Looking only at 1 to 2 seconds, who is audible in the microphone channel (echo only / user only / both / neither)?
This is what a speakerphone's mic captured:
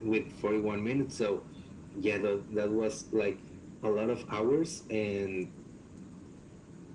echo only